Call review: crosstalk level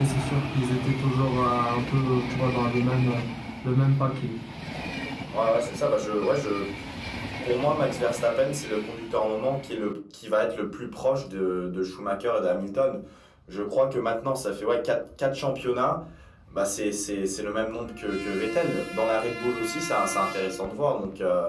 none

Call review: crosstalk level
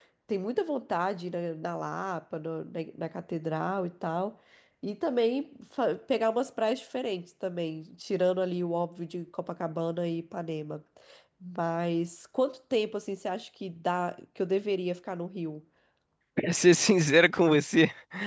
none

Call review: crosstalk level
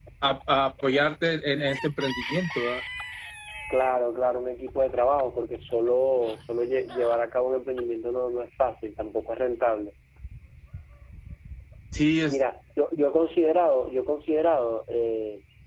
none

